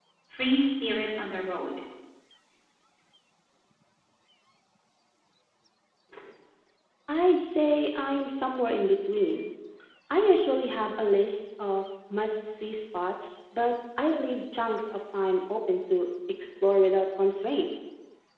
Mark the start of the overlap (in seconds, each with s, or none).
none